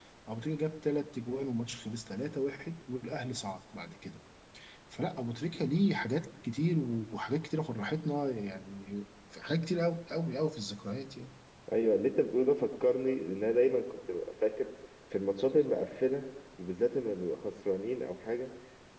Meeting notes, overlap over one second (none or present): none